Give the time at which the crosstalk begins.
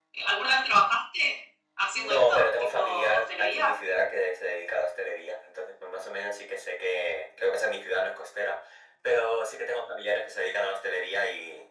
1.9 s

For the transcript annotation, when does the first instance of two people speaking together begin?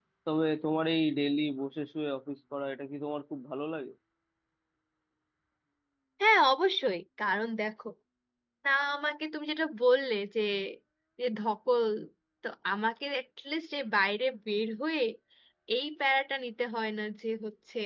none

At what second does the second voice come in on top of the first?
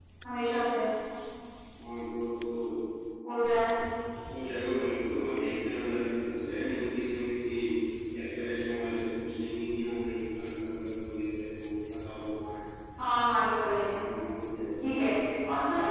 none

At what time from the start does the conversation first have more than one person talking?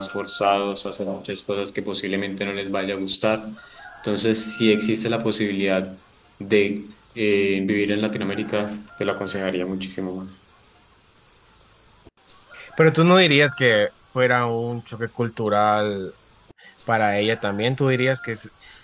none

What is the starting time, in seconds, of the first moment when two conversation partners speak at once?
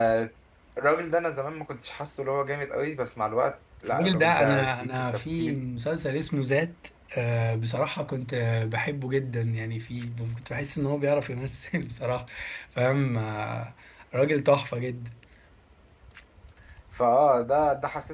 3.9 s

